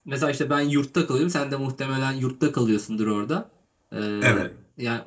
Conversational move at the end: listening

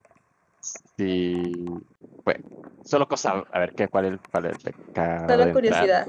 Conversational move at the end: listening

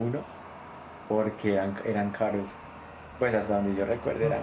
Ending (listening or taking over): taking over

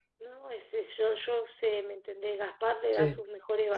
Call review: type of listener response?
listening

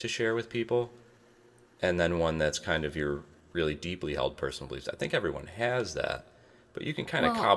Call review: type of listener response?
listening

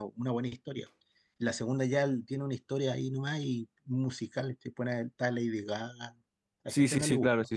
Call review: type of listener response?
taking over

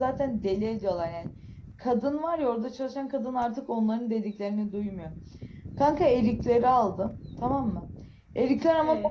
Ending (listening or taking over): listening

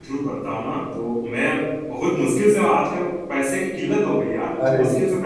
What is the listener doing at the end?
listening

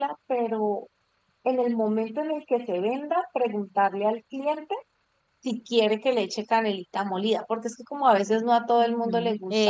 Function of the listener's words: taking over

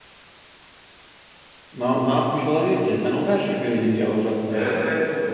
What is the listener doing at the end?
taking over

